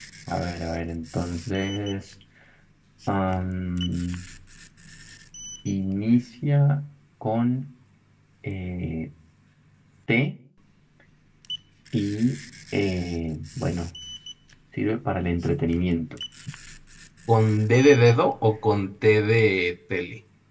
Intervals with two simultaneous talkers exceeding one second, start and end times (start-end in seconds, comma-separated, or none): none